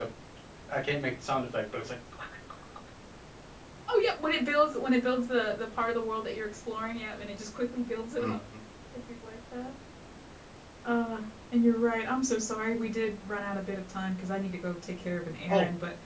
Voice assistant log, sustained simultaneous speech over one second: none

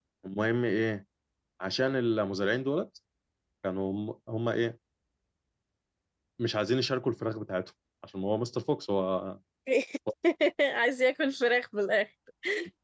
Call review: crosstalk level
none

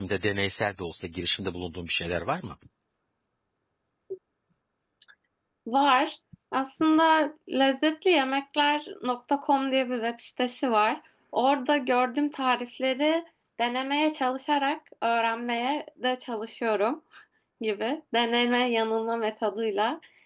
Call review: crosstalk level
none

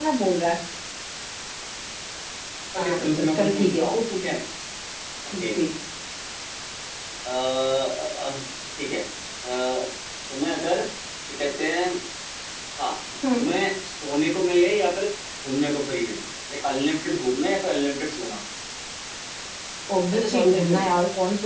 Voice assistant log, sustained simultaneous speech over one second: present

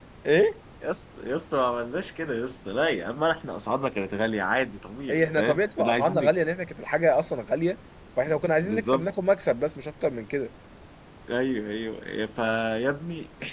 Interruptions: present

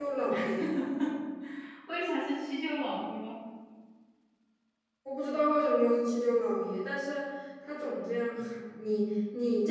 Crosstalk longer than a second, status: none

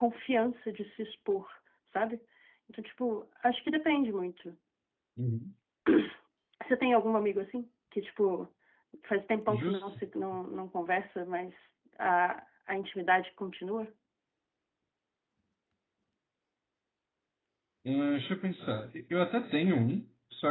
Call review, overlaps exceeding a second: none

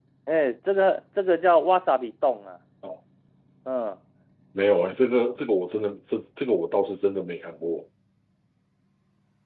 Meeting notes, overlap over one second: none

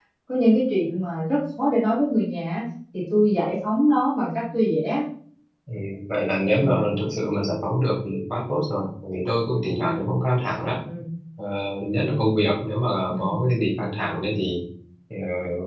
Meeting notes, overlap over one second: none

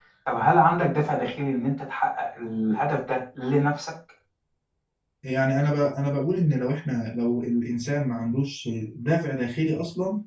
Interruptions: none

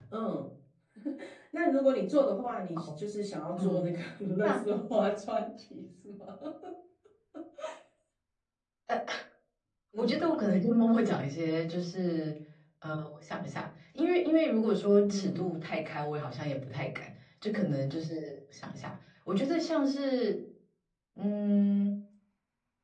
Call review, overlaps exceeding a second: none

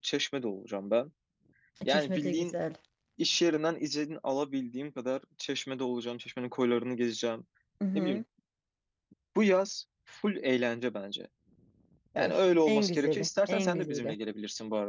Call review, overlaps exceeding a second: present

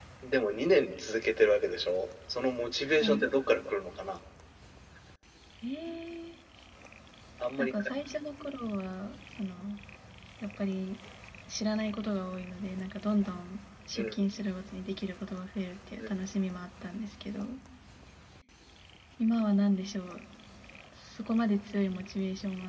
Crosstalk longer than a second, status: none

